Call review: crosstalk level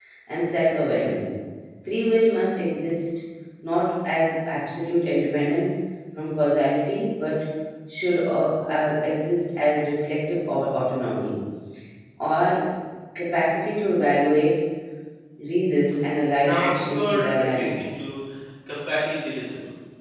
present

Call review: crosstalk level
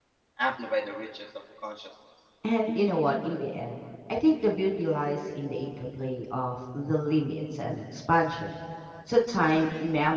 none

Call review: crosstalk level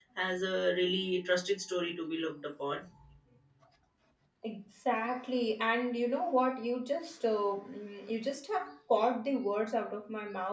none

